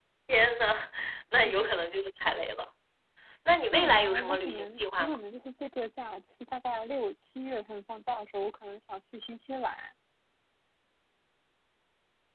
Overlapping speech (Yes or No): Yes